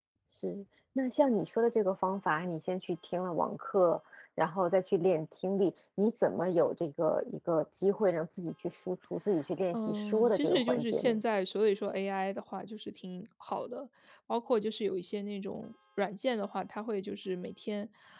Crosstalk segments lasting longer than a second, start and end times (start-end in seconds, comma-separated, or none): 9.7-11.1